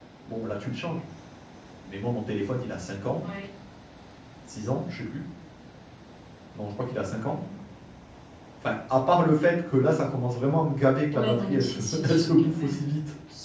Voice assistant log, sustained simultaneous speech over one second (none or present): present